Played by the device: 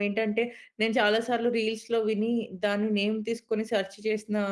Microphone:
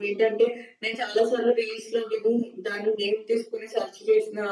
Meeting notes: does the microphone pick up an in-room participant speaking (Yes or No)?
No